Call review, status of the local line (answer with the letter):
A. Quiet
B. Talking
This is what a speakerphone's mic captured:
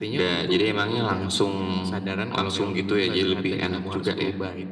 A